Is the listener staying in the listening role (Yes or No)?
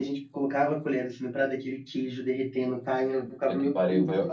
No